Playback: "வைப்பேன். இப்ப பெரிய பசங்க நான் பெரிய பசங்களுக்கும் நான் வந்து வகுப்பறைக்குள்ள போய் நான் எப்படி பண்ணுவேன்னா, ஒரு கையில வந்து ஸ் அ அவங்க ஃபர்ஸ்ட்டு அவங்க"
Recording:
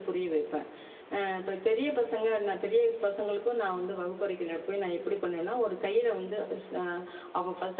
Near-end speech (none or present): none